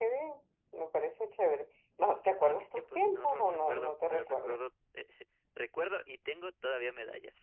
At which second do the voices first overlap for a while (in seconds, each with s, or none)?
2.2 s